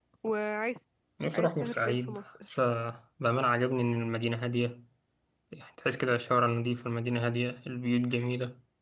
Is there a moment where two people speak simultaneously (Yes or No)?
Yes